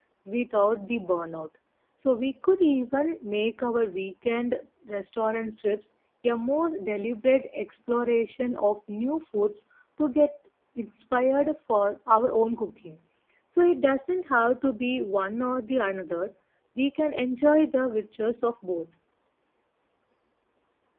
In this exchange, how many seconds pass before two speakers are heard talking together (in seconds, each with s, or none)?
none